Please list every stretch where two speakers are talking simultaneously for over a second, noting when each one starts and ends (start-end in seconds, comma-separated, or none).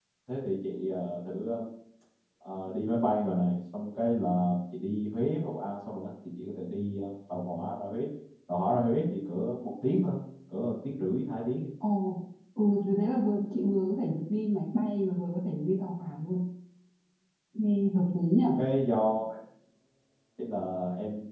none